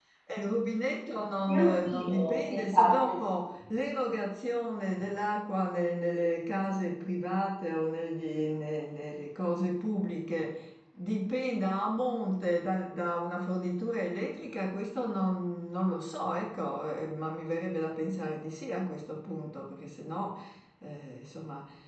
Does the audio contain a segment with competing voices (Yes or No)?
Yes